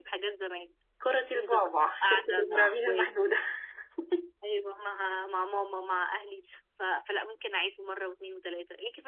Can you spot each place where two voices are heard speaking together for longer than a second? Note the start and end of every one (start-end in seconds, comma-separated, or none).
2.0-3.4